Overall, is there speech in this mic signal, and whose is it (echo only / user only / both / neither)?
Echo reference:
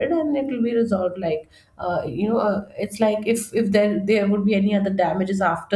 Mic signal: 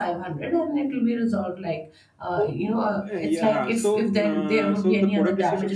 both